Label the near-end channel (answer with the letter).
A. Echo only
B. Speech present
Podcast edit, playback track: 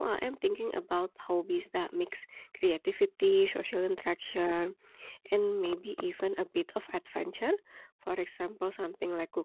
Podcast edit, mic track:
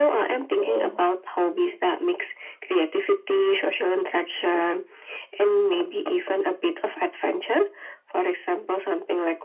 B